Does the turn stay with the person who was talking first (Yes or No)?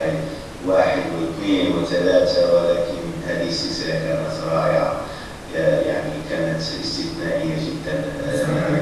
No